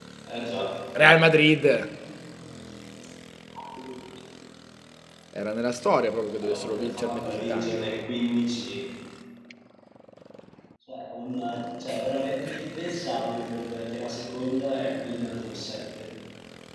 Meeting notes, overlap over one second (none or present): present